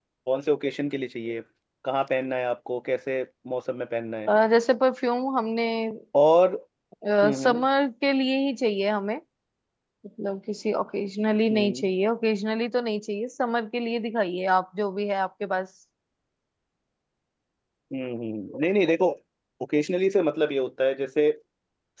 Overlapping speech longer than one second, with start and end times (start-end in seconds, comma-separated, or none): none